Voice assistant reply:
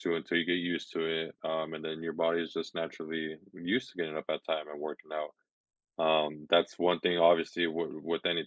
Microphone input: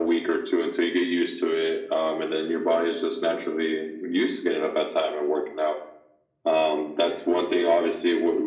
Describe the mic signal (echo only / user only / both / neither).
echo only